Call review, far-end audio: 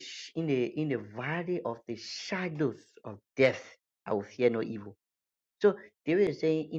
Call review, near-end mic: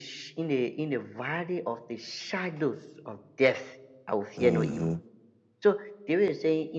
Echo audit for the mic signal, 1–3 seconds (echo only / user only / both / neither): echo only